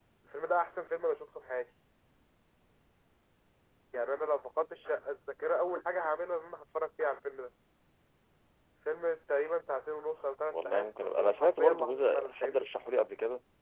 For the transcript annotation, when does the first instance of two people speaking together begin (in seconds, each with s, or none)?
10.5 s